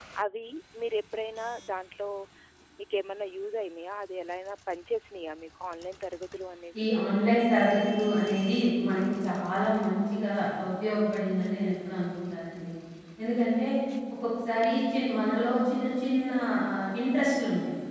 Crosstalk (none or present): none